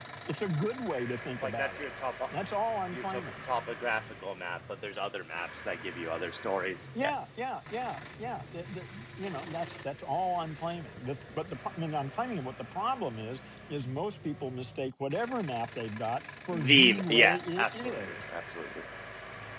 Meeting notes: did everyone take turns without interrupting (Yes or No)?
No